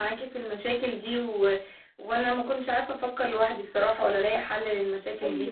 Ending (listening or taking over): taking over